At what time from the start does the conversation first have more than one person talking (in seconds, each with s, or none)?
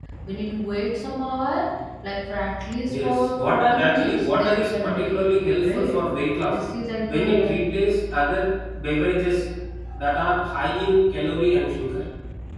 2.9 s